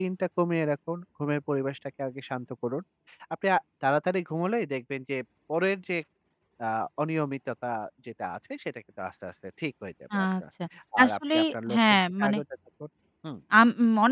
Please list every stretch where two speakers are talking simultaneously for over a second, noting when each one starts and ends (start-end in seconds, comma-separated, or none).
11.0-12.4